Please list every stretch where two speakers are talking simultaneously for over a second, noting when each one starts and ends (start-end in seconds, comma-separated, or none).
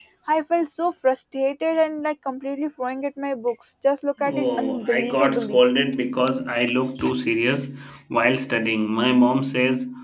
4.3-5.6